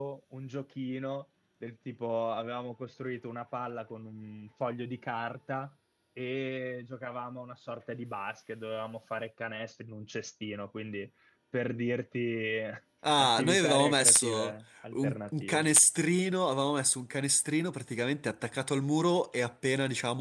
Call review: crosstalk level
present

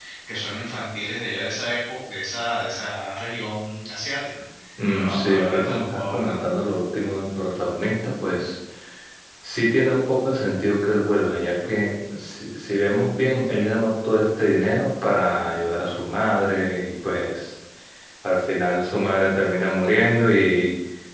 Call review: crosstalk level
present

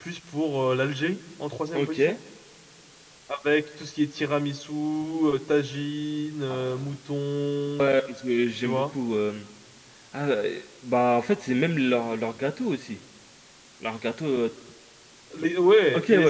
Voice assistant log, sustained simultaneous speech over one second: none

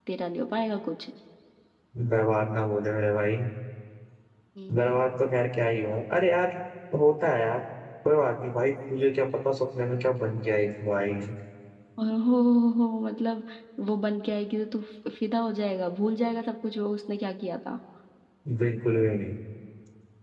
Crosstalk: none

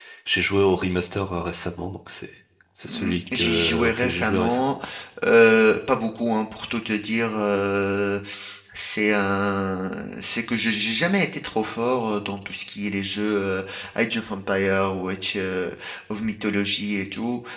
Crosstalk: present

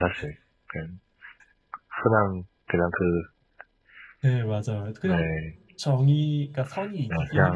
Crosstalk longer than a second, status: none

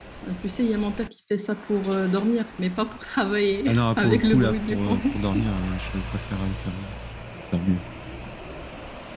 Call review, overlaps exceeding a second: present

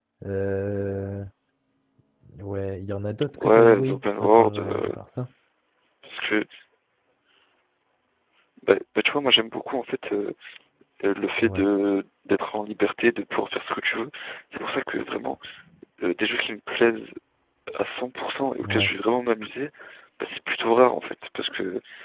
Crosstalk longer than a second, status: present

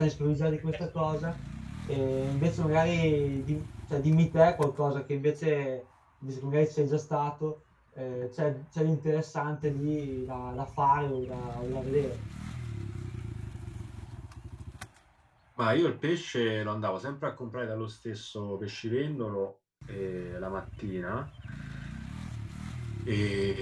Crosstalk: none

